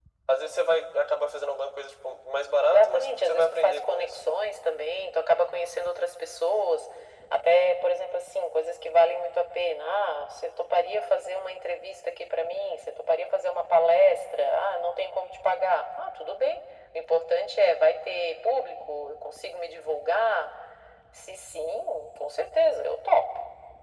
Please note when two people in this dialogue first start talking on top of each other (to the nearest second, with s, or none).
3 s